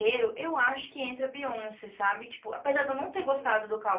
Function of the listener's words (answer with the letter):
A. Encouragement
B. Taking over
A